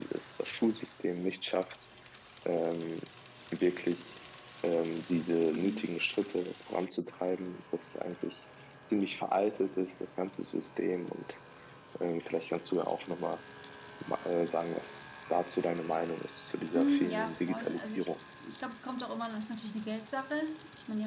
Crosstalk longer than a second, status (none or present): present